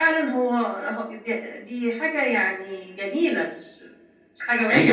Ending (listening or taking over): taking over